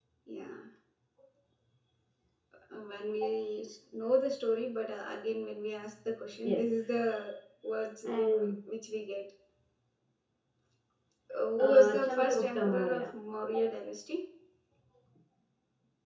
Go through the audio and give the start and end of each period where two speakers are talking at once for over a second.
11.6-13.0

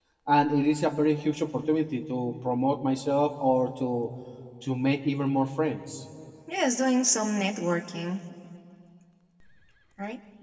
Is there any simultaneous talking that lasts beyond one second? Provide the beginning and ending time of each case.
none

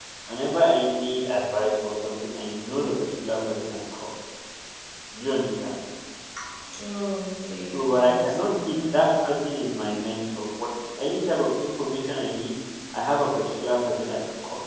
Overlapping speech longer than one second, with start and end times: 7.7-9.1

